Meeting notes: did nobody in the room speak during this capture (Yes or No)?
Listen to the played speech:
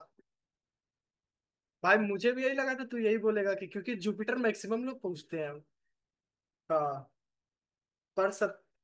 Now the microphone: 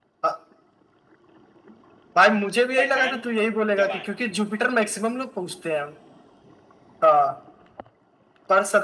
No